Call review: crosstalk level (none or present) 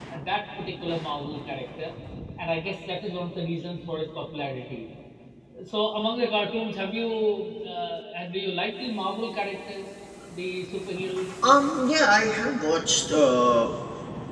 none